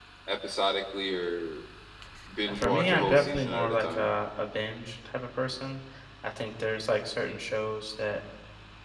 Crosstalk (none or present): present